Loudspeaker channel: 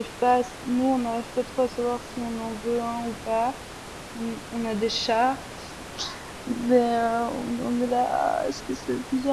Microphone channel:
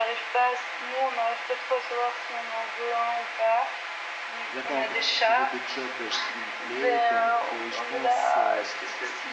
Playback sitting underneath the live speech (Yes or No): No